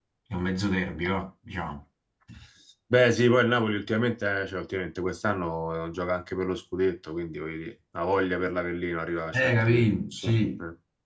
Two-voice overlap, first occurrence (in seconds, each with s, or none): 9.3 s